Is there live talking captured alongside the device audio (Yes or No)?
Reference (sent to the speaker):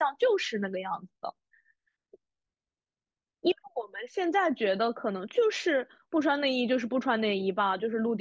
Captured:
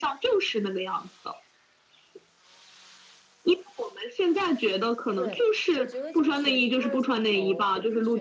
Yes